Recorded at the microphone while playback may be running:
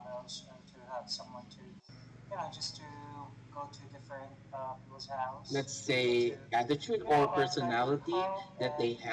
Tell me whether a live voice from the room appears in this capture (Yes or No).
Yes